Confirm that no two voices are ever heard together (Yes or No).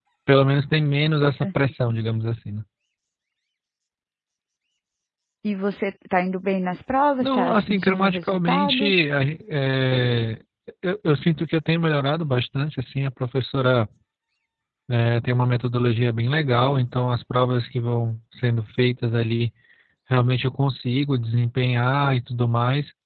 No